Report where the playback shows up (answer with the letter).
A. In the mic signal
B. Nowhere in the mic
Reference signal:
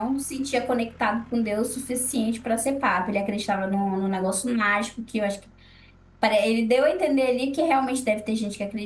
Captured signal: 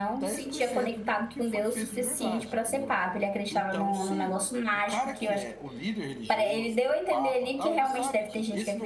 A